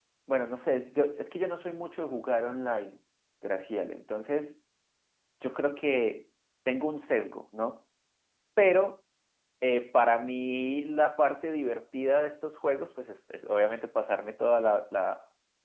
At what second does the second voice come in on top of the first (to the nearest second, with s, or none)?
none